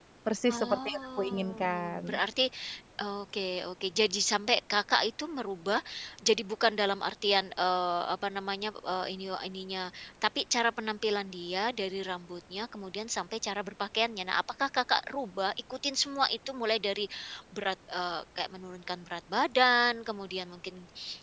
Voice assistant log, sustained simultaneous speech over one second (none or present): present